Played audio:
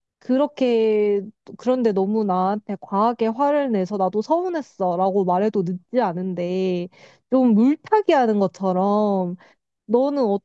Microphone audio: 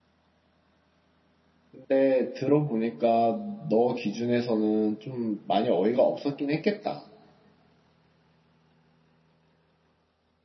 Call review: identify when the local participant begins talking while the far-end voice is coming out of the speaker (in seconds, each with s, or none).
1.7 s